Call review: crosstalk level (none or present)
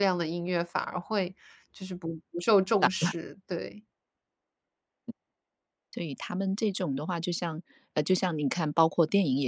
none